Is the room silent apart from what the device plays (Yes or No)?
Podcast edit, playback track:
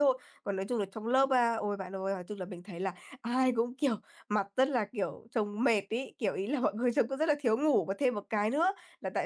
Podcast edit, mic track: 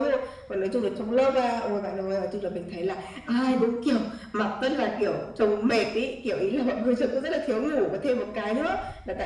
No